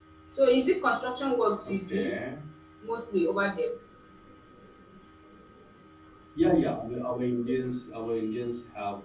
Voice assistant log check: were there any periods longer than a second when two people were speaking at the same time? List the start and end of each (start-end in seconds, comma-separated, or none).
none